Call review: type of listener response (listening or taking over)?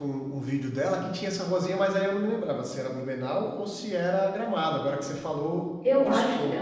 taking over